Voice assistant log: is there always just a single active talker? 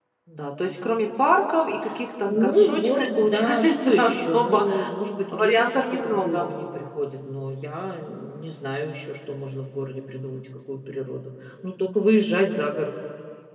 No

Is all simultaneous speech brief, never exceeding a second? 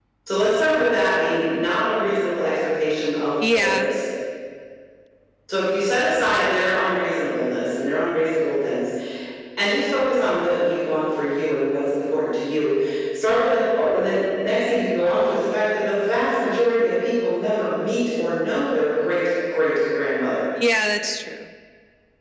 Yes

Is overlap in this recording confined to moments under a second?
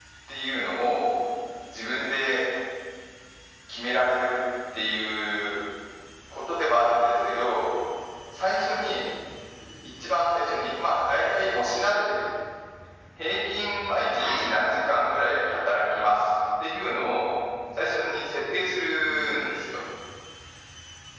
Yes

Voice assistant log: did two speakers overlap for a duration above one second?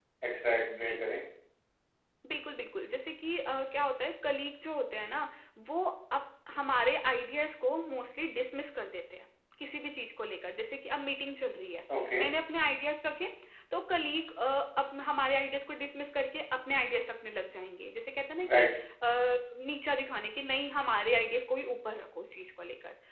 No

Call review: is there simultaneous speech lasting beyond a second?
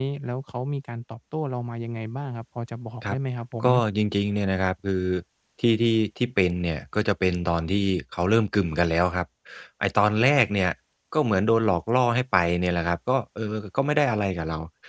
No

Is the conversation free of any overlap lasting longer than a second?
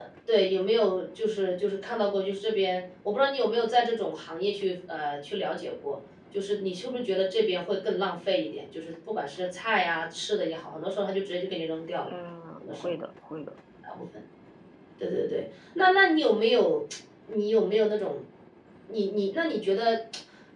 Yes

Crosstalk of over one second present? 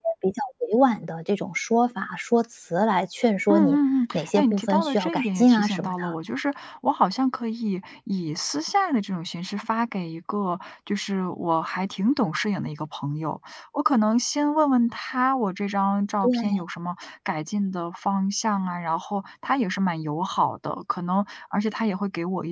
Yes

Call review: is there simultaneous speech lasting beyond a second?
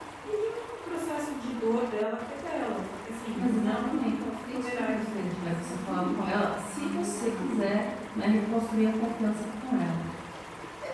Yes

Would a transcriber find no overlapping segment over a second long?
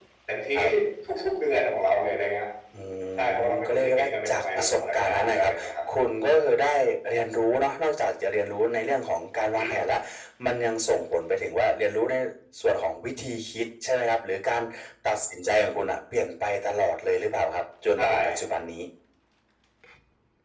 No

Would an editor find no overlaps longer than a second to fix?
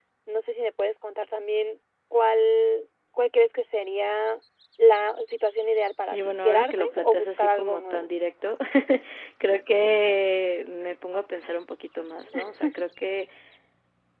No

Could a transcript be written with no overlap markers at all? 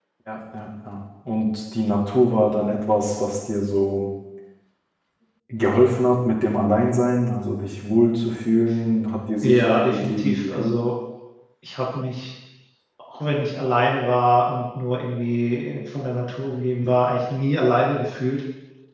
No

